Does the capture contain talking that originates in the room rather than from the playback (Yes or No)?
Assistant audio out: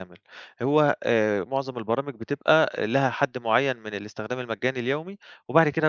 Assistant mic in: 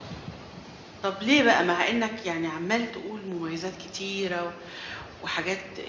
Yes